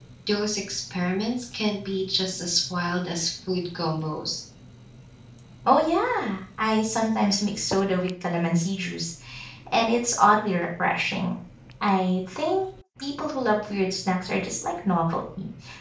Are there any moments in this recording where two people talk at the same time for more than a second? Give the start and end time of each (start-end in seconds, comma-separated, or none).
none